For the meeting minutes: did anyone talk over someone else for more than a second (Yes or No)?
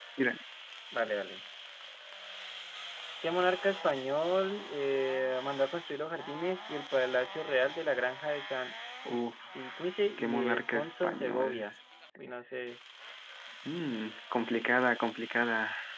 Yes